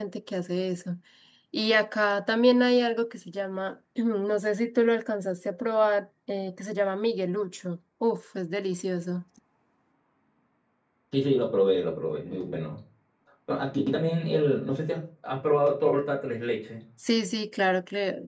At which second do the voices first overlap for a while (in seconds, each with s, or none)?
none